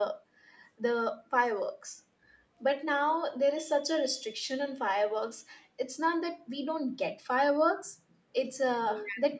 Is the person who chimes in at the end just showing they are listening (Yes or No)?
Yes